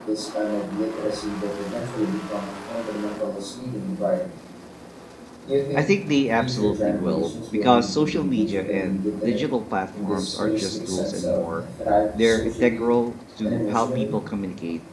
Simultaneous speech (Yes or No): Yes